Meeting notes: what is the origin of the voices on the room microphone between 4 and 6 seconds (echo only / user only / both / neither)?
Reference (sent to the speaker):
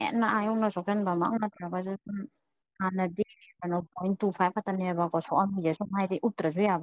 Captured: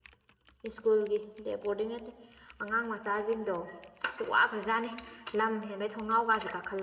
user only